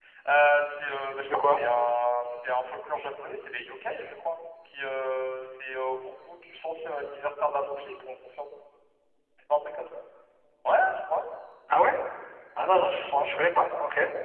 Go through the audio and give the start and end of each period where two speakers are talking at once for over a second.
none

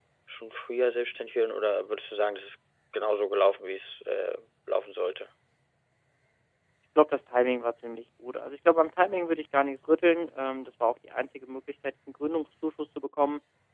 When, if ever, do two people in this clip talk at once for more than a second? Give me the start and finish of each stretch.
none

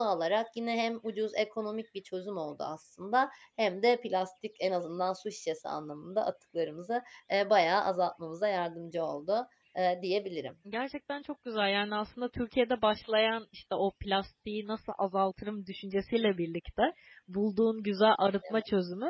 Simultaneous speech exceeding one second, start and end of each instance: none

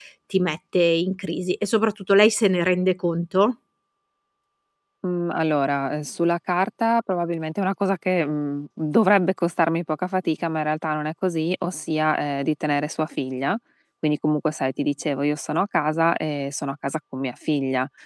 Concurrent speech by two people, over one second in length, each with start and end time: none

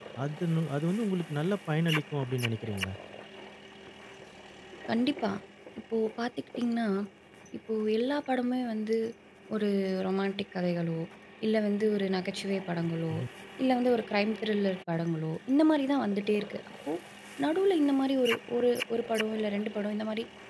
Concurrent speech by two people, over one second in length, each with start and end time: none

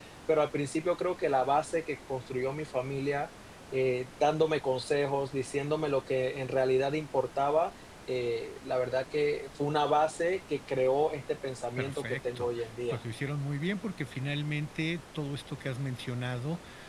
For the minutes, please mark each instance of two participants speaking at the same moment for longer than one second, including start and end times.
11.8-13.0

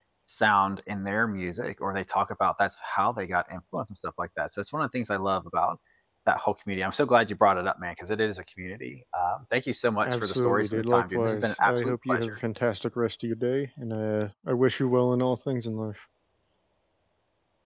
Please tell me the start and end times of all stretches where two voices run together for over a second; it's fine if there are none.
10.0-12.4

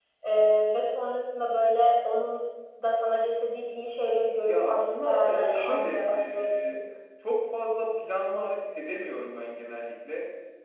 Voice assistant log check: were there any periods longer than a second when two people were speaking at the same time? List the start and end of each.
4.5-6.8

